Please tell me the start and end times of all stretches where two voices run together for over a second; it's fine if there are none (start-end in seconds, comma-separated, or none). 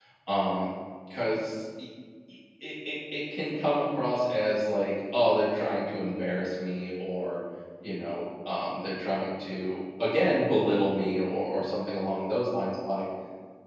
none